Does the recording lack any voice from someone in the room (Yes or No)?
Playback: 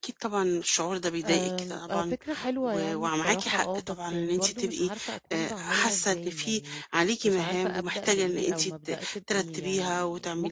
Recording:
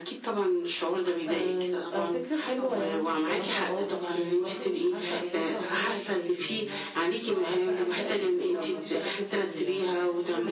No